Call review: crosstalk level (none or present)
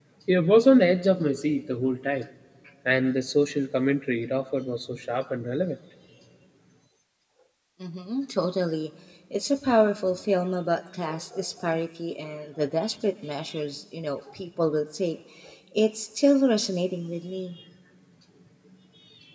none